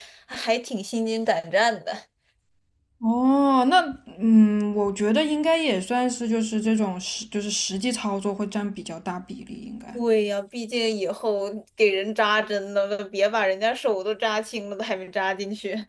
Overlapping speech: No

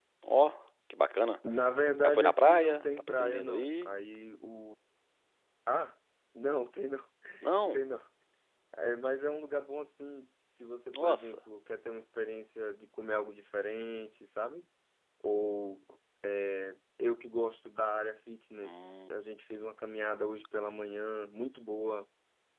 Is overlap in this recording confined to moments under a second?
No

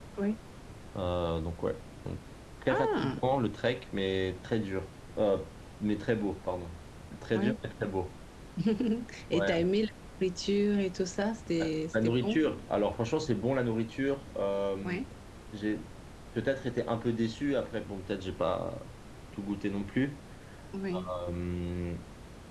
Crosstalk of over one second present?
No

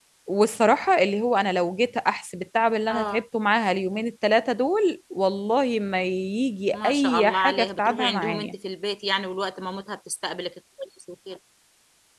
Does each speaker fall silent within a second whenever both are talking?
No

